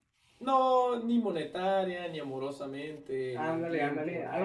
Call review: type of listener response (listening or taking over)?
taking over